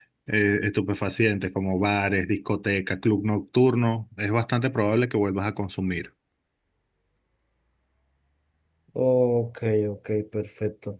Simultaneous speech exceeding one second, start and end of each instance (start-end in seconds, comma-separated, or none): none